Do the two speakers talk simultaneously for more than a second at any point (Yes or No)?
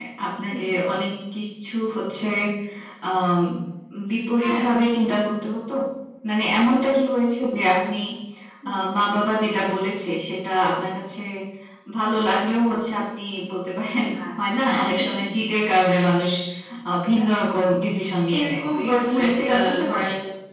Yes